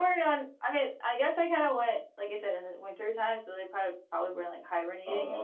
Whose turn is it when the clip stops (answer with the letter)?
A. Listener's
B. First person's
A